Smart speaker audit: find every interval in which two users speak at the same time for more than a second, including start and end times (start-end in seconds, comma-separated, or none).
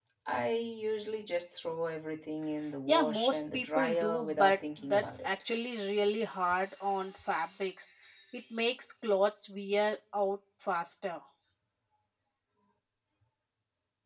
2.9-5.3